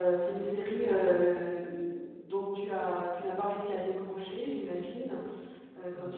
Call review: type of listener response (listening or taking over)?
listening